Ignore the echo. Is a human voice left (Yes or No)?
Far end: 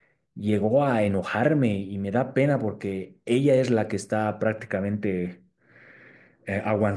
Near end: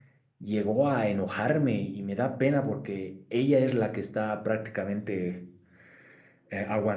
No